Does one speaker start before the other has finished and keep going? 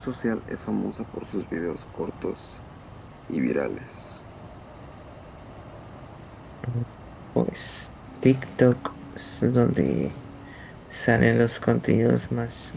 No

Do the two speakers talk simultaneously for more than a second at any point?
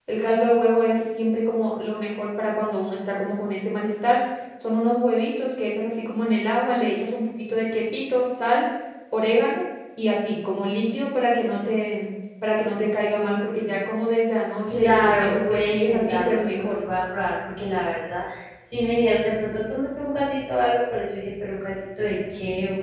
Yes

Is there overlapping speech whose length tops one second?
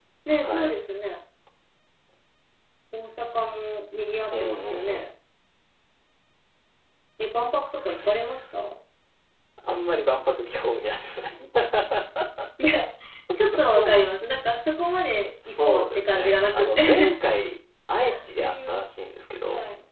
Yes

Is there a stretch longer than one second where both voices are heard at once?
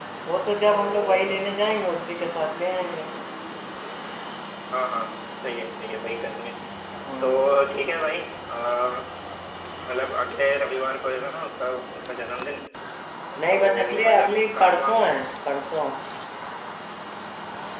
Yes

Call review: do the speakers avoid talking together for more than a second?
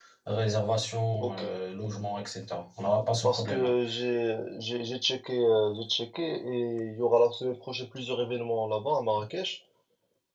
Yes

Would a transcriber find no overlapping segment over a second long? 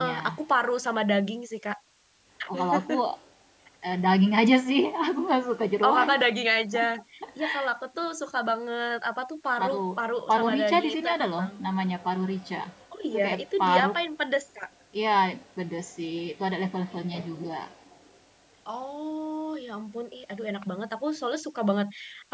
No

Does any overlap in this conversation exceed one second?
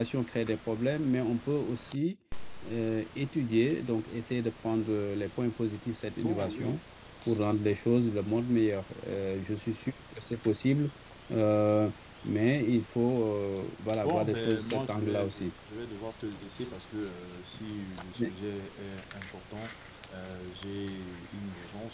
Yes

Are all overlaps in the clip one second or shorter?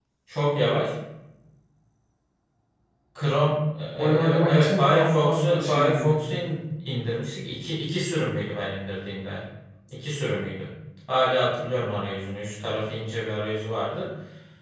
No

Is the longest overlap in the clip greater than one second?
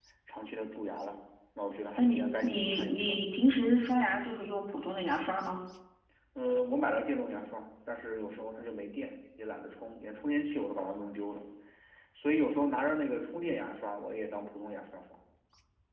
Yes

